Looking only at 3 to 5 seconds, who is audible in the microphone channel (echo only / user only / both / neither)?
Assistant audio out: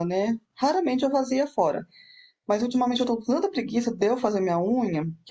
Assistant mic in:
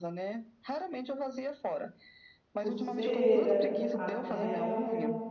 both